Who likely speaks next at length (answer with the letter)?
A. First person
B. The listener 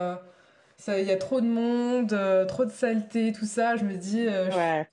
A